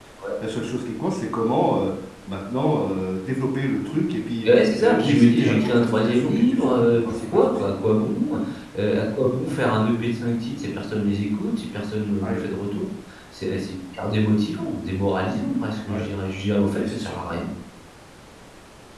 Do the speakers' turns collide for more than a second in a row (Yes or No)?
Yes